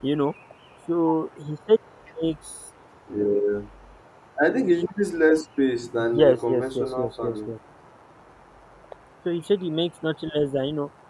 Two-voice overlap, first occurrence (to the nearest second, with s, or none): 6 s